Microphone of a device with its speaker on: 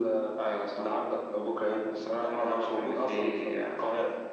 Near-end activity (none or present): none